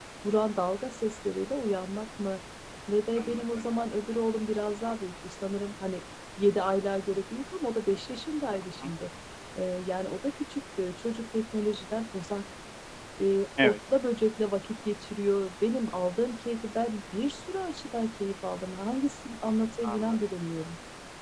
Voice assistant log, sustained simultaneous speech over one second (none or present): none